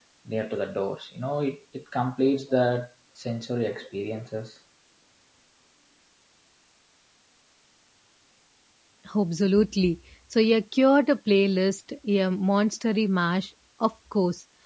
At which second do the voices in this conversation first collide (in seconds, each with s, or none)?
none